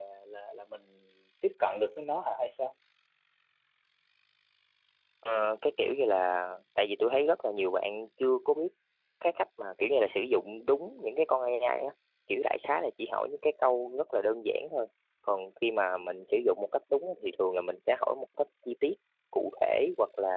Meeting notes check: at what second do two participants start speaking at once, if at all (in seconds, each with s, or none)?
none